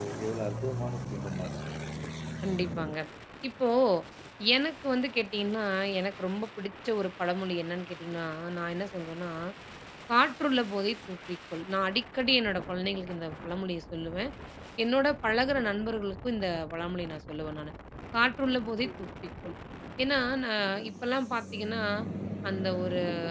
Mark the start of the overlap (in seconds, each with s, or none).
none